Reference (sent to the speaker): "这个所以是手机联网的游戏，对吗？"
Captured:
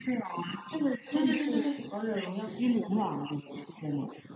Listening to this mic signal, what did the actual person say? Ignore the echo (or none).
对对对对对，王者荣耀没错，